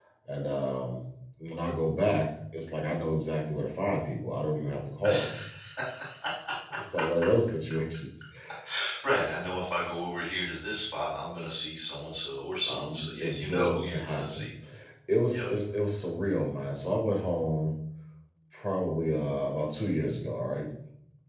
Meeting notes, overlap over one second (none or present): present